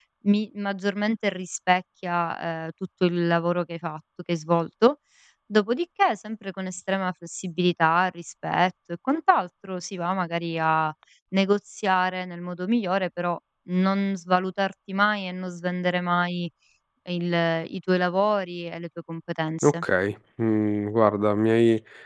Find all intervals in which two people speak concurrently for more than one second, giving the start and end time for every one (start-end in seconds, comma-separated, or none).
none